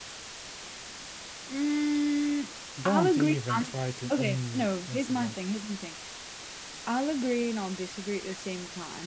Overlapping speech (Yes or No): Yes